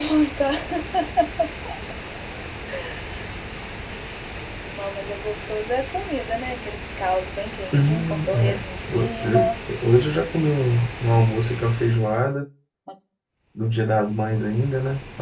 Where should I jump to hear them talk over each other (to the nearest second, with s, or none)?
8 s